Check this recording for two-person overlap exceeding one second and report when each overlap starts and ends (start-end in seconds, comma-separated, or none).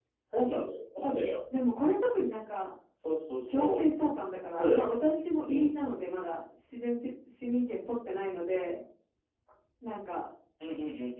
none